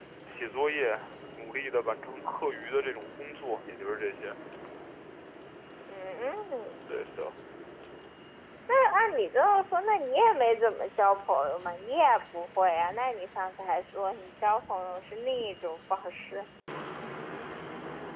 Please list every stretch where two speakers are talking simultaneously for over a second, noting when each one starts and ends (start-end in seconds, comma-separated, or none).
none